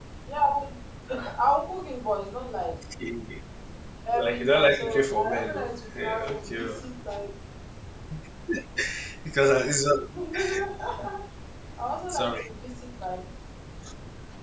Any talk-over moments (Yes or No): Yes